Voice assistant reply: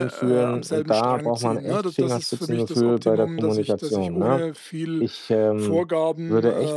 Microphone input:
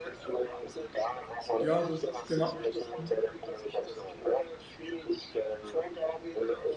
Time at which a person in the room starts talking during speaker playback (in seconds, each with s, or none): 1.6 s